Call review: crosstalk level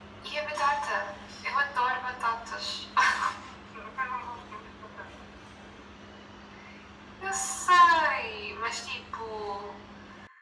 none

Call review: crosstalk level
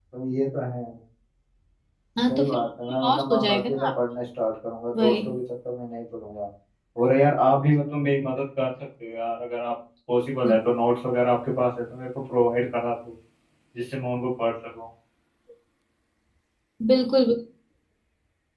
present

